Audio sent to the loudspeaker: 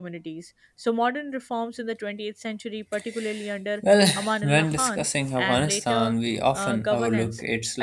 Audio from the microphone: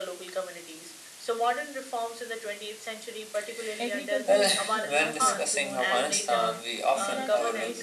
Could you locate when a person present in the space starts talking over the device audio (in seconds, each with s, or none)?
3.8 s